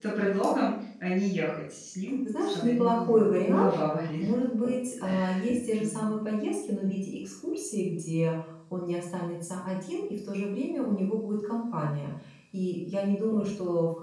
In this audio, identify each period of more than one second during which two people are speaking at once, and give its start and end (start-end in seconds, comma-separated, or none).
2.1-3.7